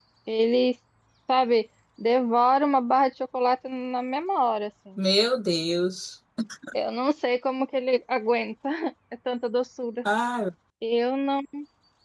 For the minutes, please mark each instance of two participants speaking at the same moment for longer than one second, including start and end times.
none

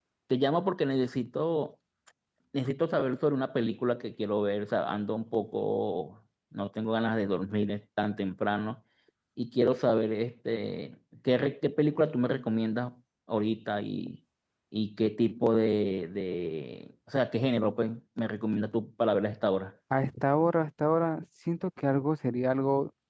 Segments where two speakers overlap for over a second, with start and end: none

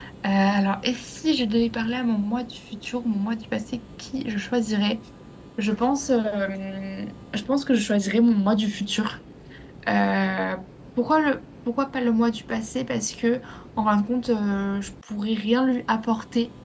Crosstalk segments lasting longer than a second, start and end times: none

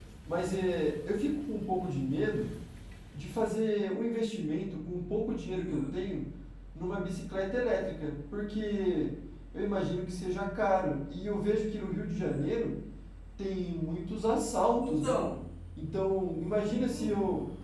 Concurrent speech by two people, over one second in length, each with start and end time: none

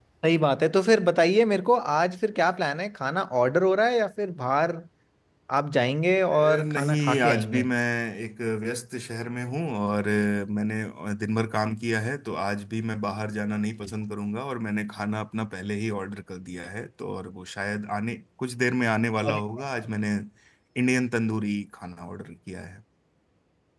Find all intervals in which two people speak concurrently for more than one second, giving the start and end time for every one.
6.3-7.6

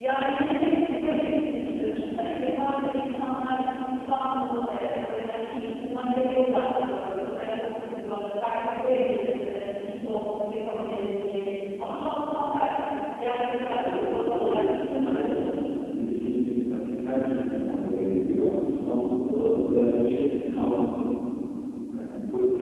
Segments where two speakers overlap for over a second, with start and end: 13.6-15.5

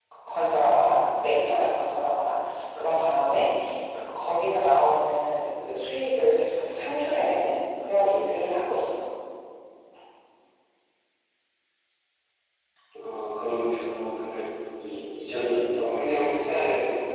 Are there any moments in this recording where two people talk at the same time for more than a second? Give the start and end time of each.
none

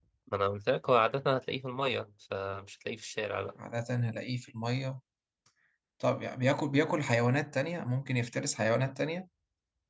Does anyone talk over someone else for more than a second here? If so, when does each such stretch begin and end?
none

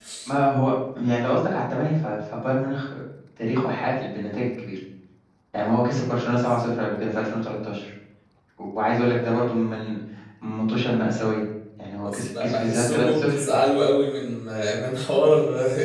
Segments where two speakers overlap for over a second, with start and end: 12.0-13.4

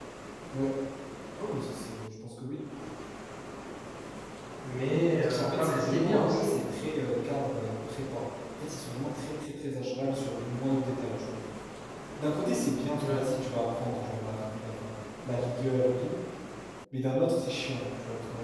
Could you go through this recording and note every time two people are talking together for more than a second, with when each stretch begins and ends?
5.3-6.6

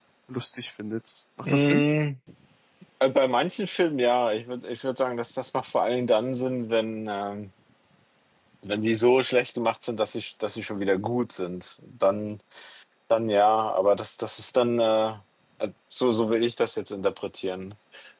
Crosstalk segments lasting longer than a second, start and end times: none

